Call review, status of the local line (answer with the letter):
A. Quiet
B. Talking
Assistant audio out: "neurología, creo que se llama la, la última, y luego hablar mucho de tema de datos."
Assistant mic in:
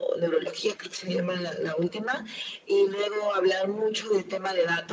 A